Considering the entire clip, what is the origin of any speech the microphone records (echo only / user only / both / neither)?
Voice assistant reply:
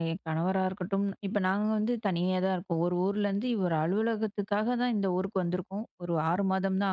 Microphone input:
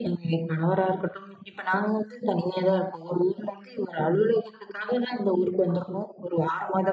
echo only